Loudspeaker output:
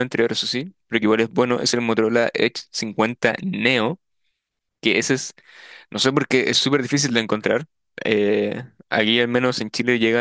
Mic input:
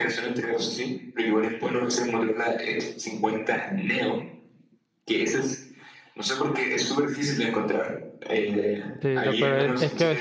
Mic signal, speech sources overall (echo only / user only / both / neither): both